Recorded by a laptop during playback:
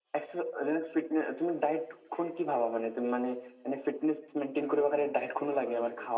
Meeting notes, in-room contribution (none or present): present